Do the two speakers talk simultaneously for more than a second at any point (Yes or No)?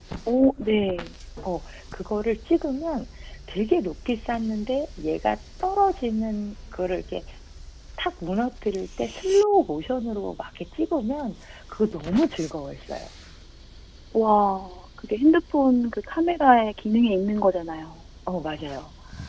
No